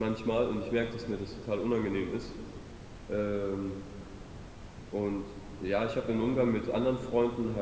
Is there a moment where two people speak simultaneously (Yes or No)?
No